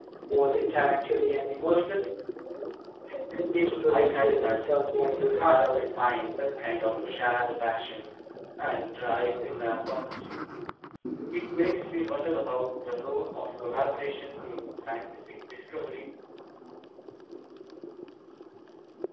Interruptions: present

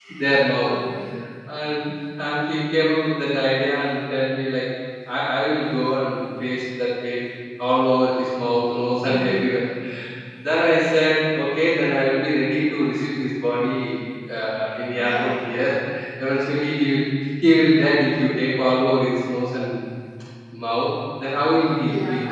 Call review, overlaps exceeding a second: none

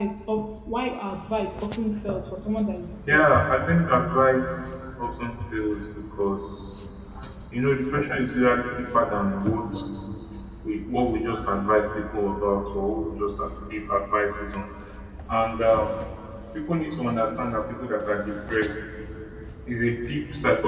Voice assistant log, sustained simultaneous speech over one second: none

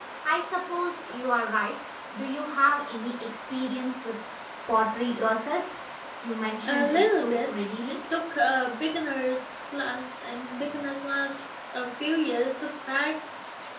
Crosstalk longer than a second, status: present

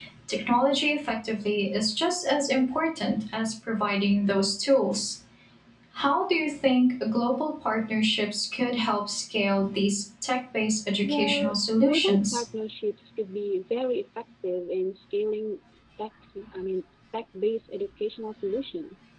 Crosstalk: present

